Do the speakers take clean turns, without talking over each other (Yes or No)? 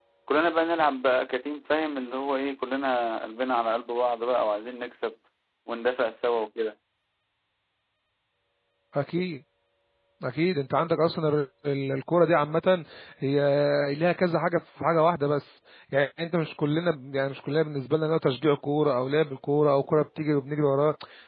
Yes